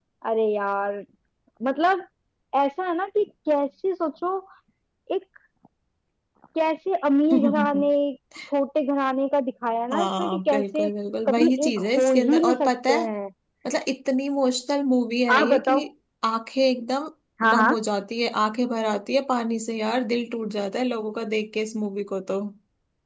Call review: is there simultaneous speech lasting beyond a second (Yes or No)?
Yes